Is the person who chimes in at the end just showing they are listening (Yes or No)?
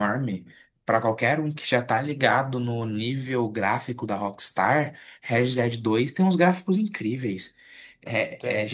Yes